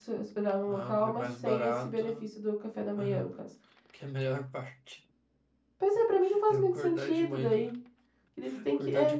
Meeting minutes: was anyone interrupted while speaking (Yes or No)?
Yes